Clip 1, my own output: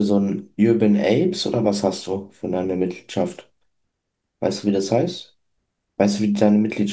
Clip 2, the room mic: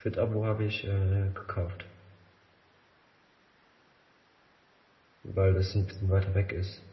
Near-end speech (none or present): present